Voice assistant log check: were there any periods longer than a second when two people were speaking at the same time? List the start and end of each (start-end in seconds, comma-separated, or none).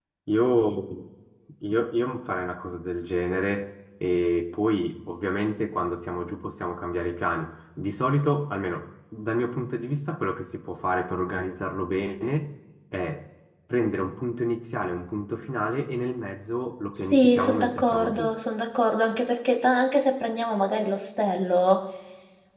16.9-18.3